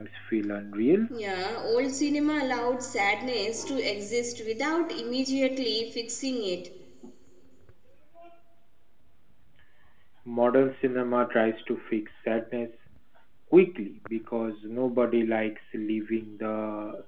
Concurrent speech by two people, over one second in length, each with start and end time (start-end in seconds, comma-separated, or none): none